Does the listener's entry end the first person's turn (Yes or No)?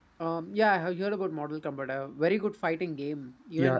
Yes